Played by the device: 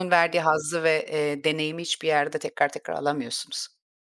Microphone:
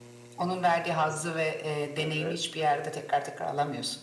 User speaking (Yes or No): Yes